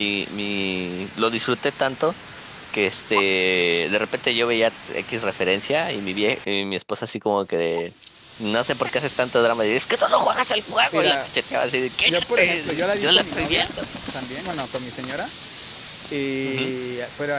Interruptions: present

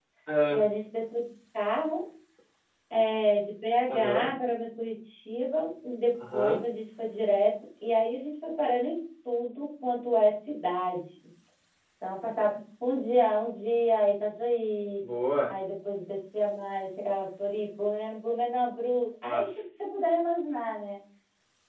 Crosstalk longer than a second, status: none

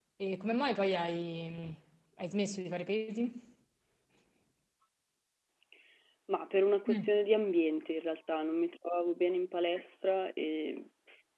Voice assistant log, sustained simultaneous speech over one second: none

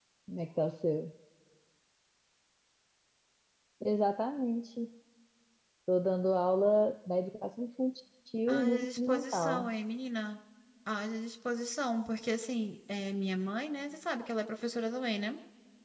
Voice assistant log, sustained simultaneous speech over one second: present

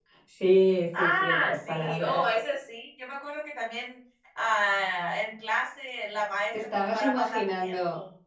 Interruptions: present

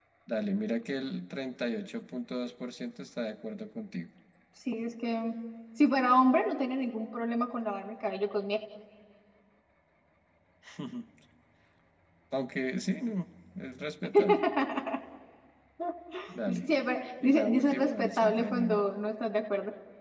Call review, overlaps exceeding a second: present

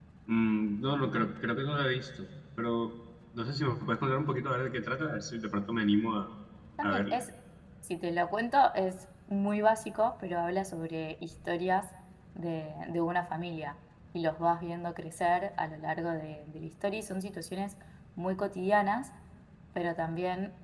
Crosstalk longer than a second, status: none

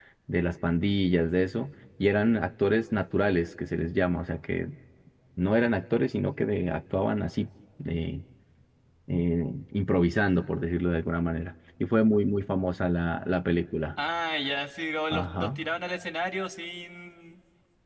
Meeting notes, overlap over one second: none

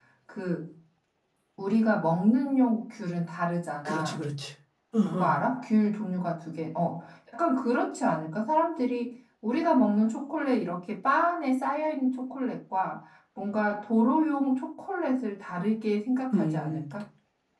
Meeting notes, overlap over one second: none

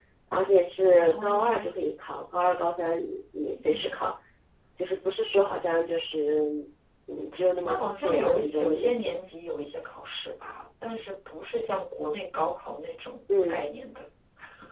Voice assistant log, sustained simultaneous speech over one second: present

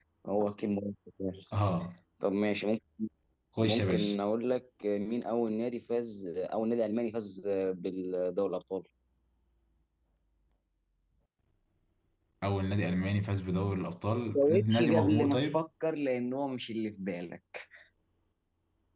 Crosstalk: present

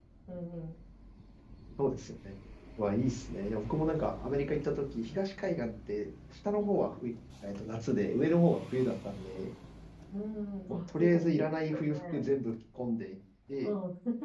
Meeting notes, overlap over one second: present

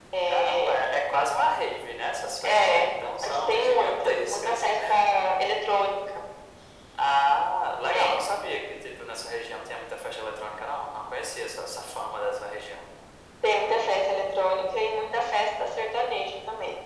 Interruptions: present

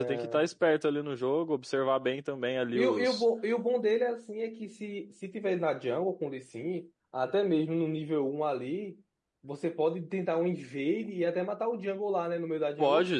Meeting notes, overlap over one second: none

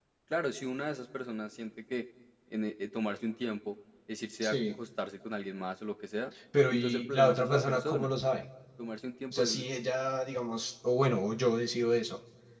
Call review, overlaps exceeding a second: present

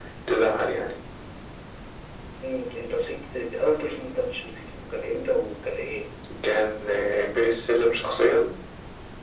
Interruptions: none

